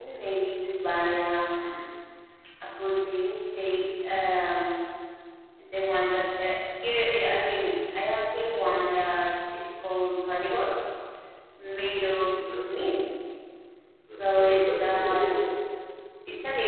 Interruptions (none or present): present